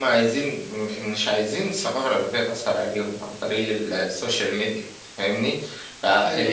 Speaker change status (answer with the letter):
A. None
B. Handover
A